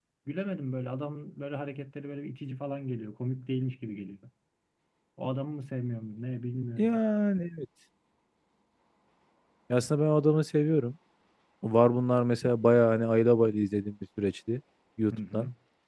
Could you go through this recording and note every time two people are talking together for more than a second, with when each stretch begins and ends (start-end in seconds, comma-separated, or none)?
none